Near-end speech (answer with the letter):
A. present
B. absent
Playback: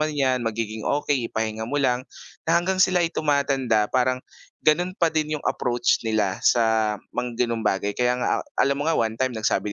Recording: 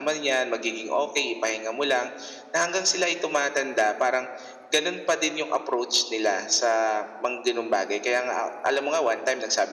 B